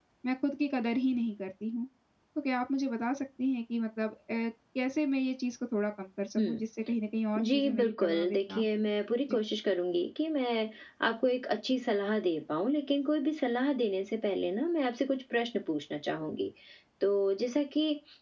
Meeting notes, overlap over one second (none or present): present